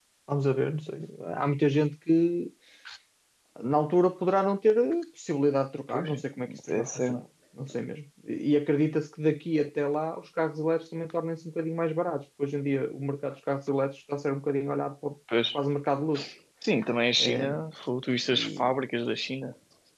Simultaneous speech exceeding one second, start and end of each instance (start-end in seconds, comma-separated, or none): 5.9-7.2